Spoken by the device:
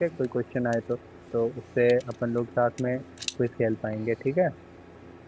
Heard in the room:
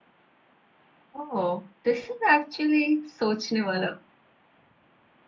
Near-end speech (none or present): present